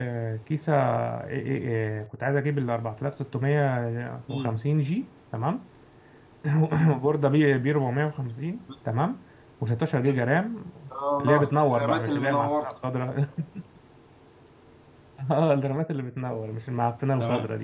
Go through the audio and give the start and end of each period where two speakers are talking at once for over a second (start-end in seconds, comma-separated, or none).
11.2-12.7